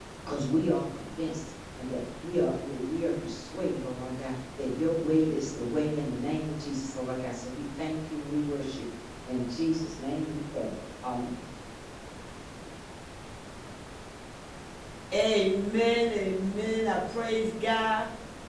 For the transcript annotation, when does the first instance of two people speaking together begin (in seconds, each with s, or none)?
none